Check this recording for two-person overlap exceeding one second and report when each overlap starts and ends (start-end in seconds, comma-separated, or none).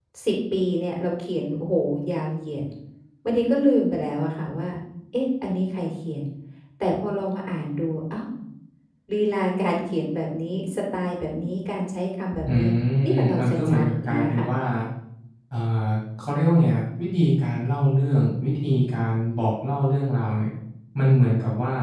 13.1-14.5